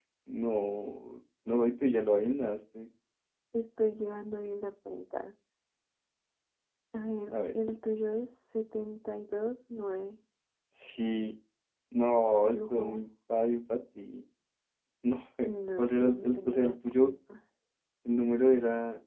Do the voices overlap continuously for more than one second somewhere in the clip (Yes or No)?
Yes